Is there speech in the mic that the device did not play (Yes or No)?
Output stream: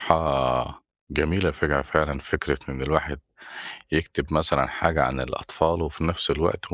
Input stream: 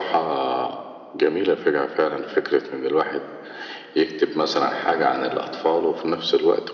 No